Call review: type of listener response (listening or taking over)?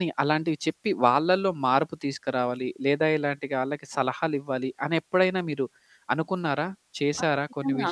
taking over